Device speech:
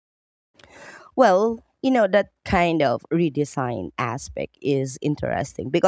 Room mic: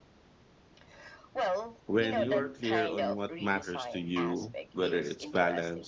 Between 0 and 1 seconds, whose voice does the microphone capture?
neither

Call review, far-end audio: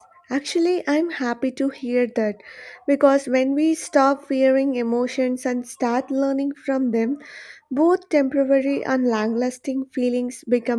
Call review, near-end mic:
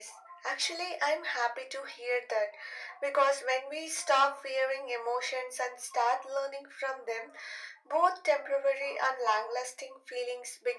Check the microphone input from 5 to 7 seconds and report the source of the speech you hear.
echo only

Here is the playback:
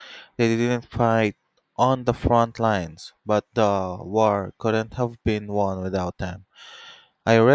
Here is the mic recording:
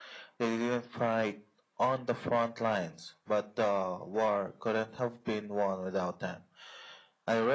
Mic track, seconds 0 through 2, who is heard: echo only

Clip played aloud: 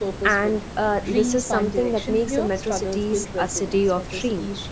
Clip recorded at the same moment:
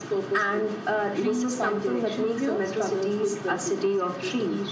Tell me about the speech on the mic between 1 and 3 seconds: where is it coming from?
echo only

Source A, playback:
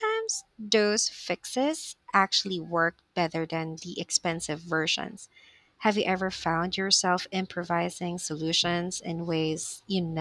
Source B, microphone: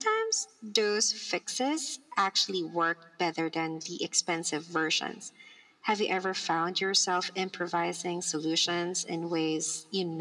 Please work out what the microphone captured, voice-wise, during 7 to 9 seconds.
echo only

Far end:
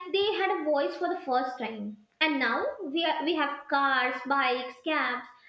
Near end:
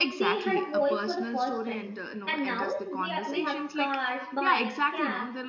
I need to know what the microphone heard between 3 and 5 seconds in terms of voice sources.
both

